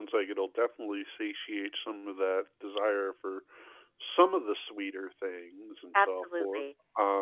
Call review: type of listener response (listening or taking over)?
taking over